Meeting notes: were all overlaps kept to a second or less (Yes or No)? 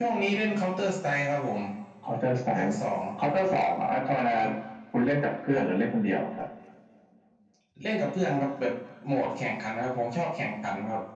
Yes